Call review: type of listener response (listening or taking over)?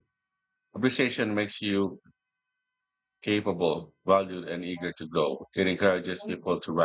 listening